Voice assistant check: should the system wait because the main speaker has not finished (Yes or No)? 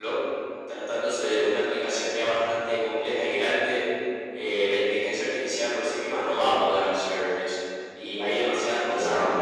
Yes